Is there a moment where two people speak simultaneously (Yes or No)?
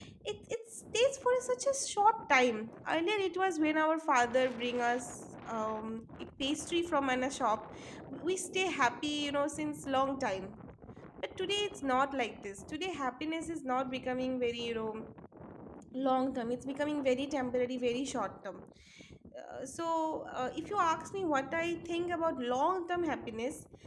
No